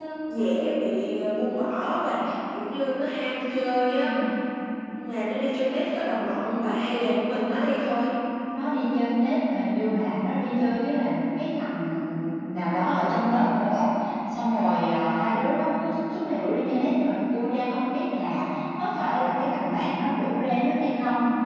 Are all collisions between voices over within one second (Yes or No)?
Yes